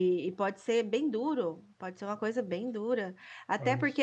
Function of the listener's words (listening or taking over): listening